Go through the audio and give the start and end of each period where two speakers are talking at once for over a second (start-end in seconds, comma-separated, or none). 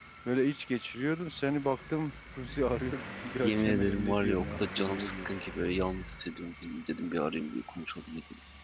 3.4-5.3